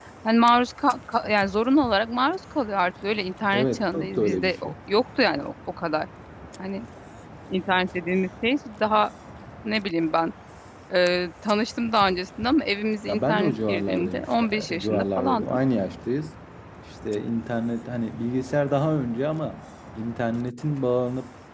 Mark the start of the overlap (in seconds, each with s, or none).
3.5 s